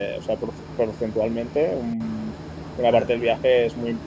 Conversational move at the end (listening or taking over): listening